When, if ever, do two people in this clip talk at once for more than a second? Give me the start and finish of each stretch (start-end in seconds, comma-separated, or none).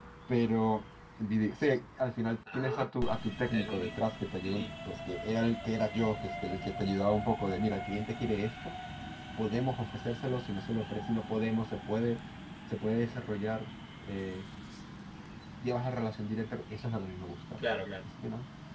none